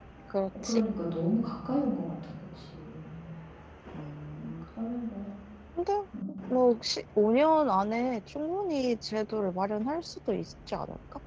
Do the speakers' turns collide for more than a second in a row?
No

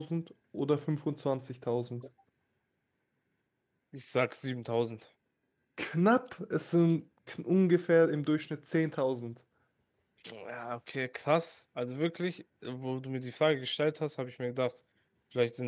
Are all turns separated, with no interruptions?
Yes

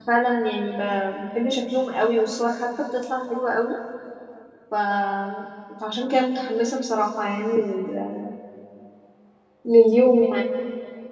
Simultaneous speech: No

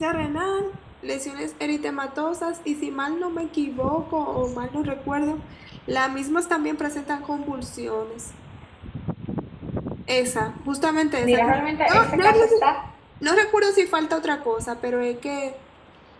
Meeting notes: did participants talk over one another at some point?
Yes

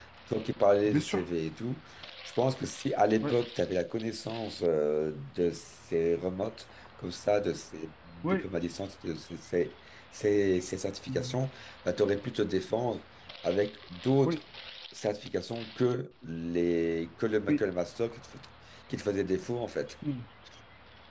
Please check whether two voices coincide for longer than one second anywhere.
No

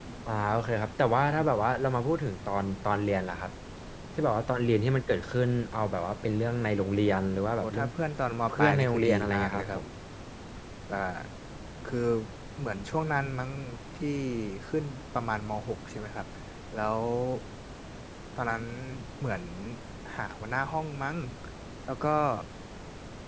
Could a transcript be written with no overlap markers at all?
No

